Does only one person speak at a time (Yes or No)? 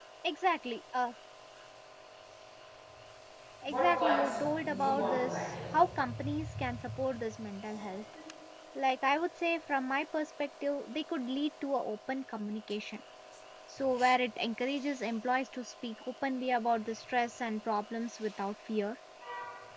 No